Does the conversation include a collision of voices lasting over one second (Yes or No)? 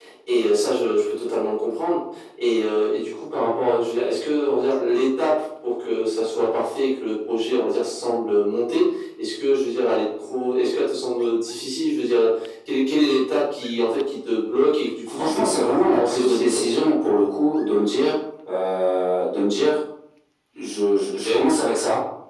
Yes